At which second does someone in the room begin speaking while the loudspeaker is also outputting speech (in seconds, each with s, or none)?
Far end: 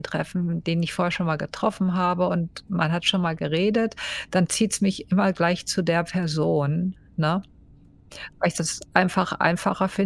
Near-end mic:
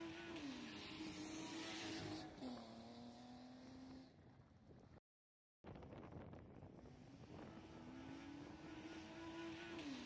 none